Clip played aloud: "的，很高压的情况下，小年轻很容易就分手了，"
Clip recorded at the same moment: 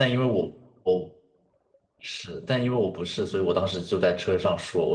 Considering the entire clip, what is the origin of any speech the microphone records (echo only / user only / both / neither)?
user only